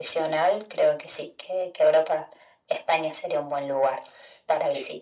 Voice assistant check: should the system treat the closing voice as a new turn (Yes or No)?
Yes